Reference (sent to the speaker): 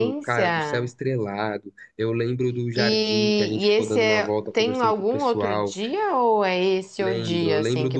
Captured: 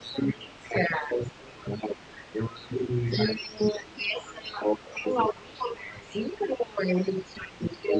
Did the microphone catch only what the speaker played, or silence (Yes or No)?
Yes